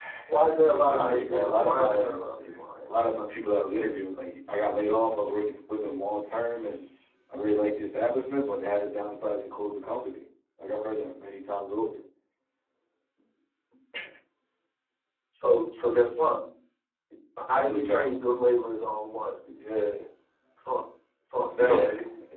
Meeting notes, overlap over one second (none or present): present